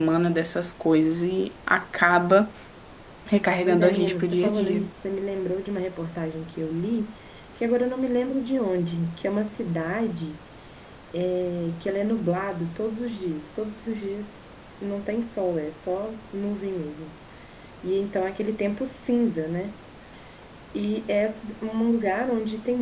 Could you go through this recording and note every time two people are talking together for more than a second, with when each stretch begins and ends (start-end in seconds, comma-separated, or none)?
3.6-4.9